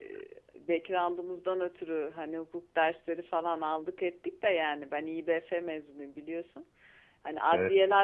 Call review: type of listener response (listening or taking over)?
listening